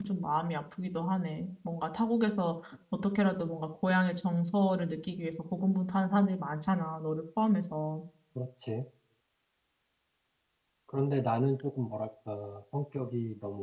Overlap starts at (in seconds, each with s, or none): none